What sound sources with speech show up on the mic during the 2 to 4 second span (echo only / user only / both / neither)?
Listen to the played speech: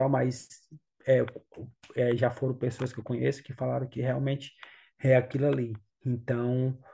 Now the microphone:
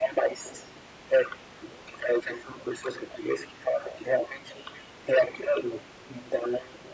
echo only